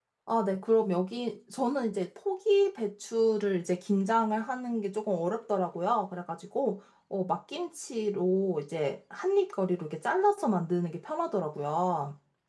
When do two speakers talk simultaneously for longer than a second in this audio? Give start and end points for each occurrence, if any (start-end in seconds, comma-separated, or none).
none